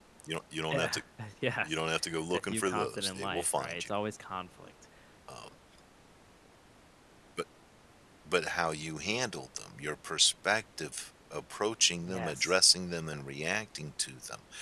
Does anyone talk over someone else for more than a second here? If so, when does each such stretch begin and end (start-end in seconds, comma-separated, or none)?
2.3-3.9